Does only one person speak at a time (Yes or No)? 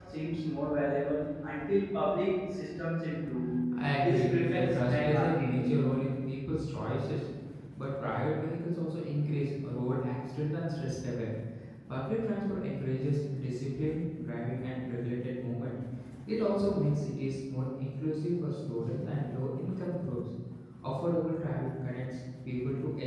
No